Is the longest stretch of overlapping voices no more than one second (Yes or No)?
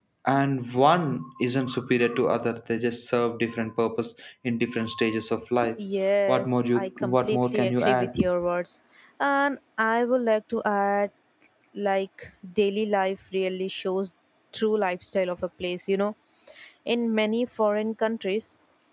No